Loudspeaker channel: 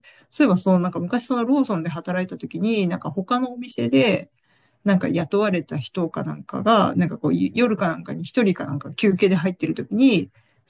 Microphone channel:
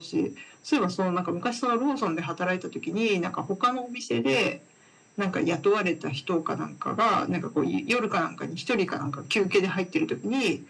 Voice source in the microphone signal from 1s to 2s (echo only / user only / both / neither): echo only